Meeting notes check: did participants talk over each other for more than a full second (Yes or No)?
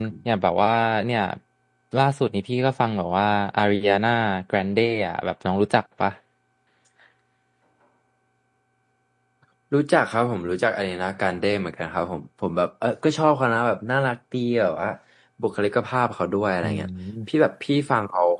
No